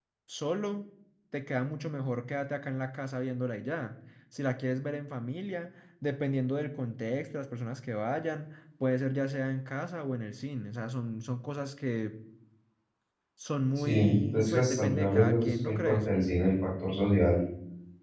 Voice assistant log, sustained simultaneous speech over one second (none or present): present